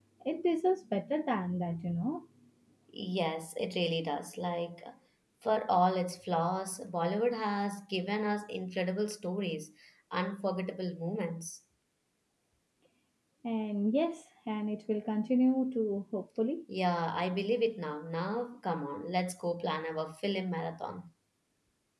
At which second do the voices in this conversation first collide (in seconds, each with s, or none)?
none